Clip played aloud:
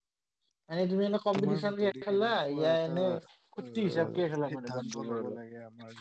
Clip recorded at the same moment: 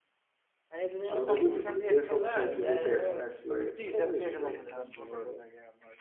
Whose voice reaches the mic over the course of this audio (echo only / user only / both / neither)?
both